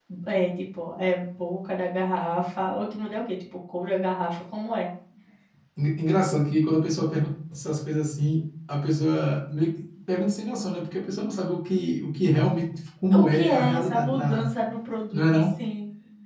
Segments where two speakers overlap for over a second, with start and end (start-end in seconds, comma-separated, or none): 13.1-14.5